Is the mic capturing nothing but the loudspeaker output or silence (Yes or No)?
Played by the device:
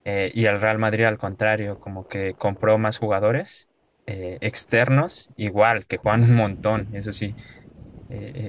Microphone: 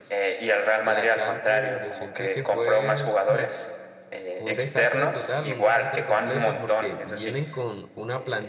No